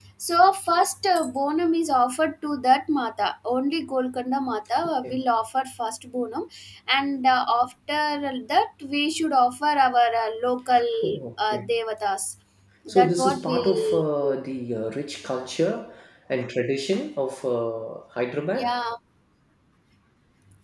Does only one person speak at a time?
No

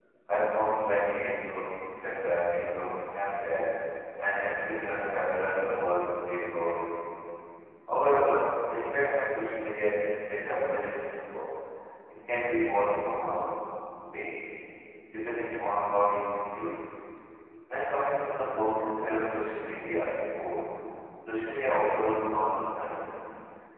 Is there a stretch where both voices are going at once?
No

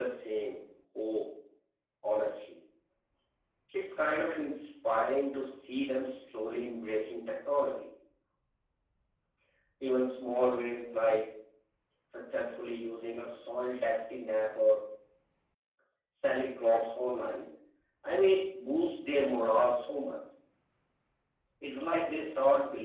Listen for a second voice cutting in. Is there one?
No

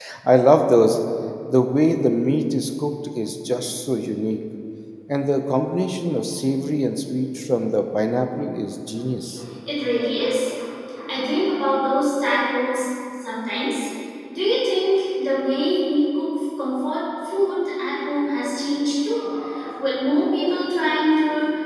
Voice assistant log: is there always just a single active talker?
Yes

